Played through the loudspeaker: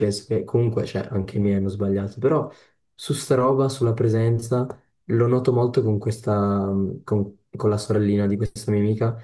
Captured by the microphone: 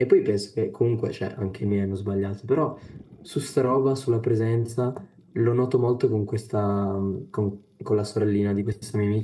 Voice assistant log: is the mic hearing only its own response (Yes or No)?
Yes